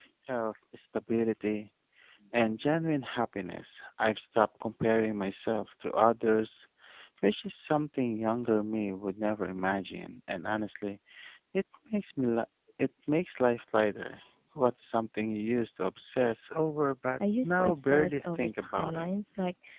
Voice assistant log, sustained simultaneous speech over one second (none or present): present